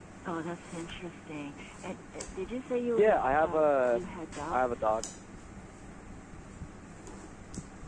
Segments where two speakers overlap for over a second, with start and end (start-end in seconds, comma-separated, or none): 2.9-5.0